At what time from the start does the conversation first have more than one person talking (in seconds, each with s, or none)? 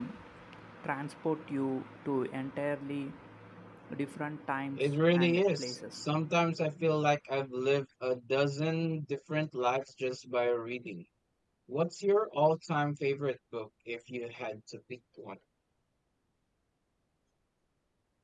4.8 s